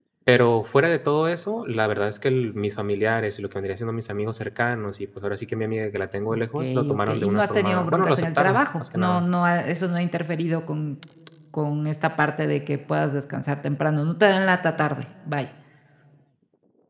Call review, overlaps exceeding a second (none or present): present